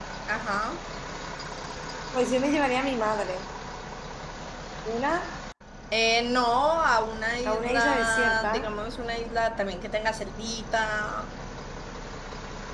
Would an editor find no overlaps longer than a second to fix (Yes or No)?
No